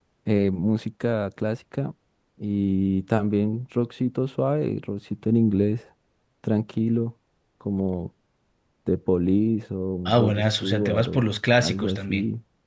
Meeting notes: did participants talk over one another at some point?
Yes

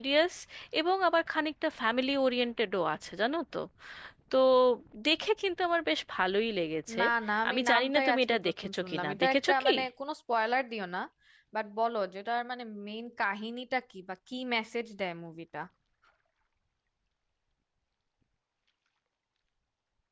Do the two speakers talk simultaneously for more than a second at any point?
Yes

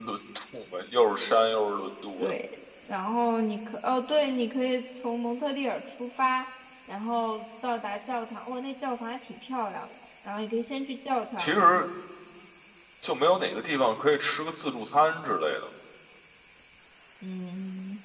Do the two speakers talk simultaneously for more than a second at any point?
No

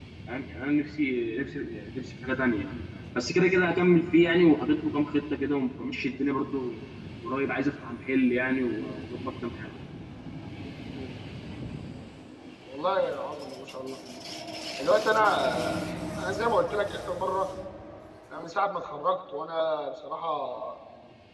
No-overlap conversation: Yes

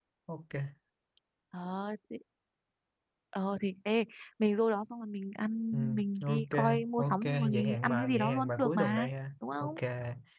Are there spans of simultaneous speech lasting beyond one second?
Yes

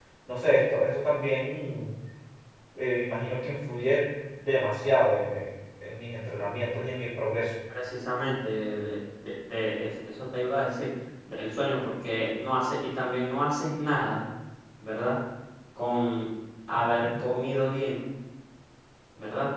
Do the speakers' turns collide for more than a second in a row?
No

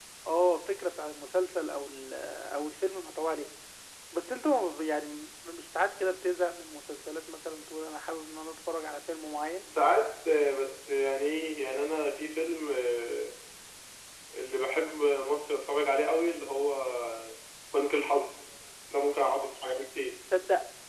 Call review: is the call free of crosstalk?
Yes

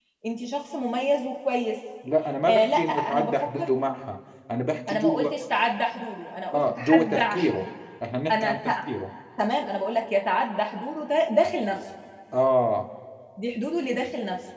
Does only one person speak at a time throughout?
No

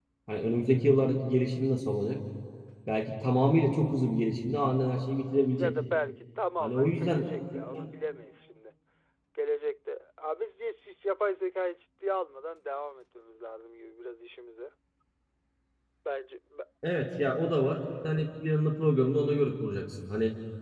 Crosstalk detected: Yes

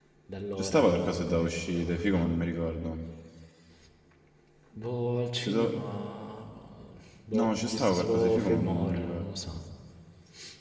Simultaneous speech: Yes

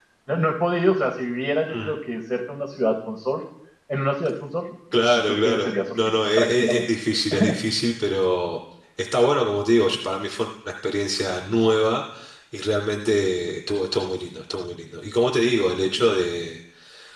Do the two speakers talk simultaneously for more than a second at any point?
Yes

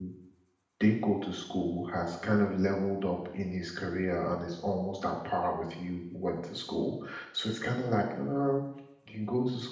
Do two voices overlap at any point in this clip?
No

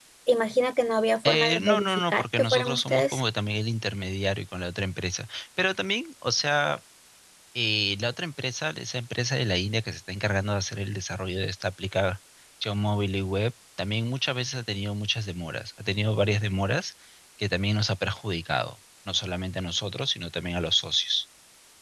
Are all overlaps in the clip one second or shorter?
No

